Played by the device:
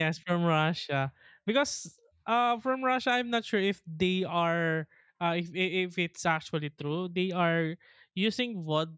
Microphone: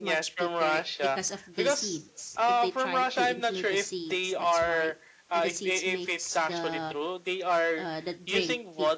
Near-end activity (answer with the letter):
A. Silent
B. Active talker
B